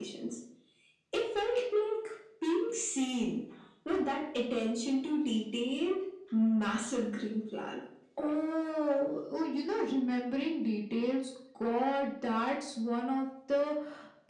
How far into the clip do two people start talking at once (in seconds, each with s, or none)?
none